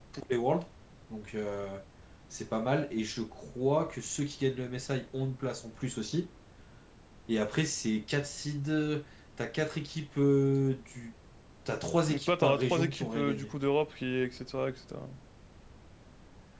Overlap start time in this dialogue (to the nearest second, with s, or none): 12 s